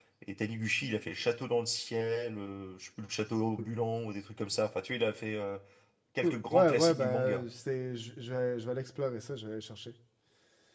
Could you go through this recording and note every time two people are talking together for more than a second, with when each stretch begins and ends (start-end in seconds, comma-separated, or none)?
6.2-7.4